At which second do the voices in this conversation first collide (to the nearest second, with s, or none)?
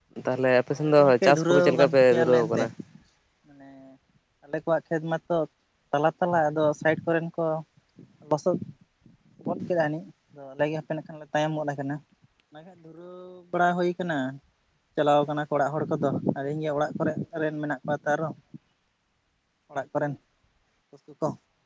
1 s